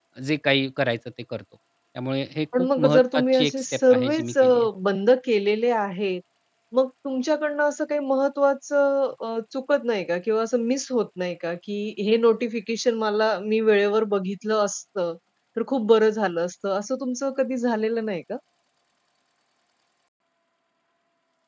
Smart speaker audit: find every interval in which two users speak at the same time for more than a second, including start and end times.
2.5-4.4

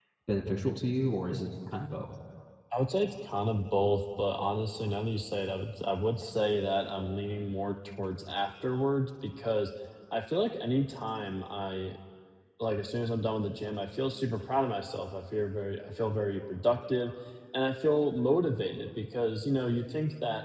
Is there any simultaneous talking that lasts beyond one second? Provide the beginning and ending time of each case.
none

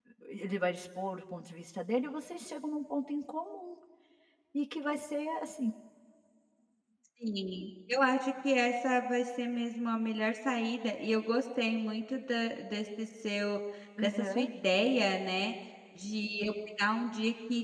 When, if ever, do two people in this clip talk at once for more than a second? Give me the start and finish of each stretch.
none

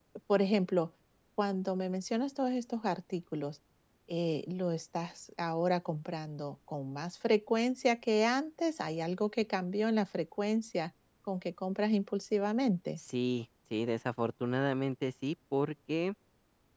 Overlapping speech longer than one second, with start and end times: none

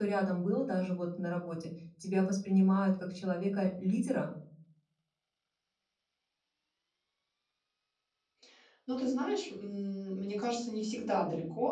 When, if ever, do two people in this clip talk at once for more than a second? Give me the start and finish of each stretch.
none

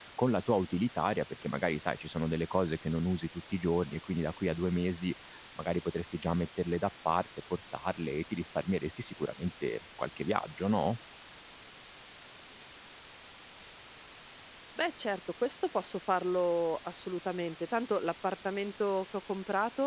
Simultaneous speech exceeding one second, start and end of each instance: none

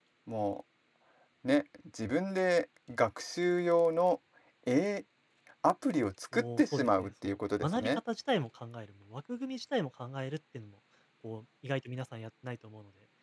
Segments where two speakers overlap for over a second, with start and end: 6.3-7.9

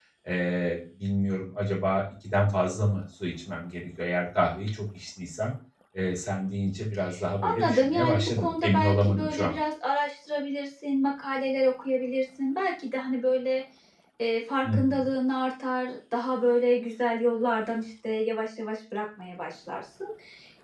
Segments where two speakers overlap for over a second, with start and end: 7.4-9.6

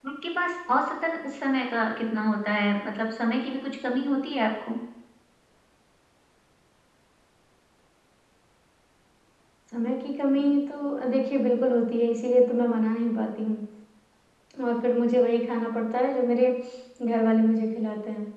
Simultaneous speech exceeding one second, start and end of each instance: none

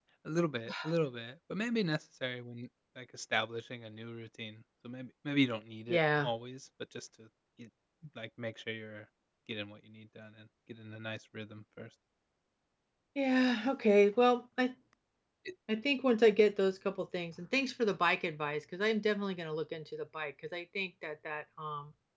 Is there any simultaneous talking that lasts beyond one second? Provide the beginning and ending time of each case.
none

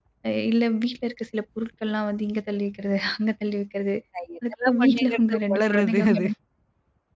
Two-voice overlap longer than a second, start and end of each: 4.5-6.3

